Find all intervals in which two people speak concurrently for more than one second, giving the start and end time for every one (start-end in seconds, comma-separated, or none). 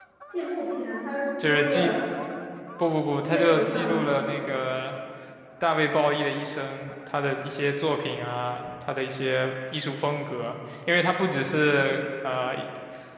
3.2-4.5